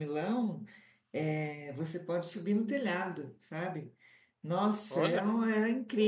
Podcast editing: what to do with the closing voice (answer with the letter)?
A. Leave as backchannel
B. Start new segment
A